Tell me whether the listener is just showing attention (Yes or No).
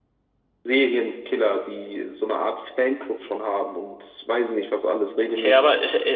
No